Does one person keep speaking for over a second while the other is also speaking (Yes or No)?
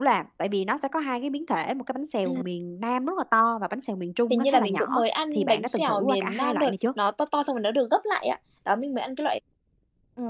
Yes